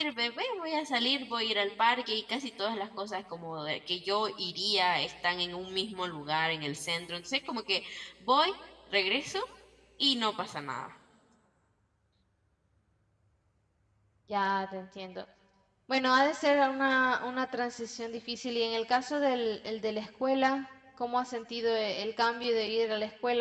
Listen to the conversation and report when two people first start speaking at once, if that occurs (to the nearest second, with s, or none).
none